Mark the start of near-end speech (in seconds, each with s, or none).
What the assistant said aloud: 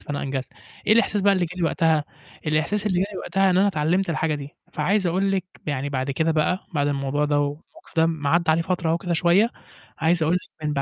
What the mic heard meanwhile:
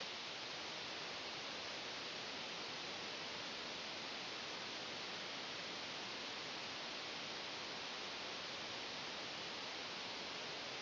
none